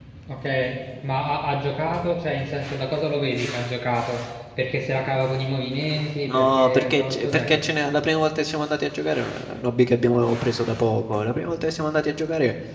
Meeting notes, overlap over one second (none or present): present